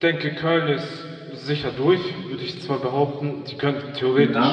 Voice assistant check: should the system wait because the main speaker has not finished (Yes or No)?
Yes